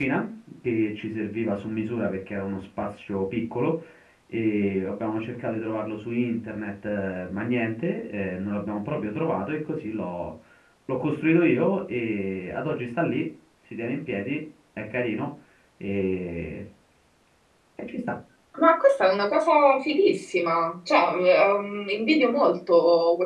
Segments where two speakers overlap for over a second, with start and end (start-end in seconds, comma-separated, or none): none